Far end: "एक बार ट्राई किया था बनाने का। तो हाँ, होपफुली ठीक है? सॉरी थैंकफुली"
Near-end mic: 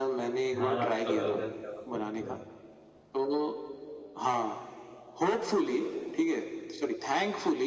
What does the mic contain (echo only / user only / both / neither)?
both